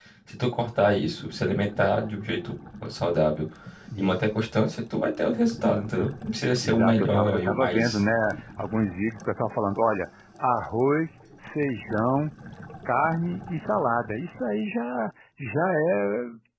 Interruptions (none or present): present